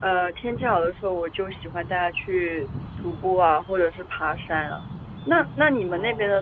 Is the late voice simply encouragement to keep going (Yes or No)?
Yes